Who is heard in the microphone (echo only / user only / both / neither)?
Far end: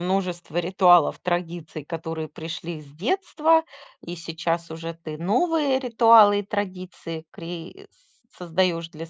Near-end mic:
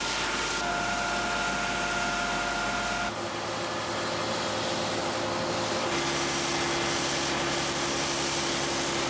neither